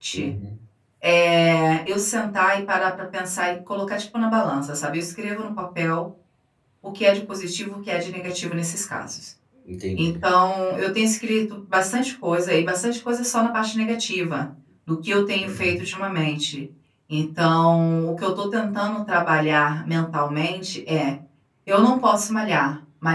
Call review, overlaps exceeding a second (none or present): none